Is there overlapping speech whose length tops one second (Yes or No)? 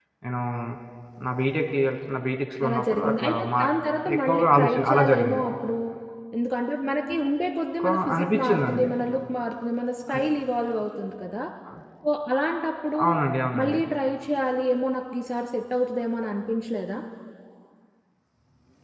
Yes